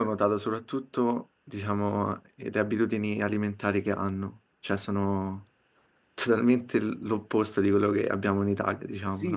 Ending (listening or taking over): taking over